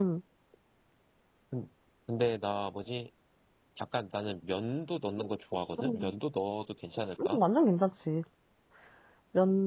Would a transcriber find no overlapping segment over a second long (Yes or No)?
Yes